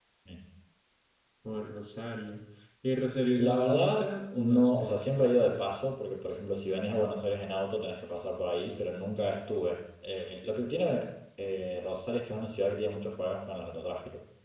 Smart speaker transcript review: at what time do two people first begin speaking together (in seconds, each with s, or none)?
3.4 s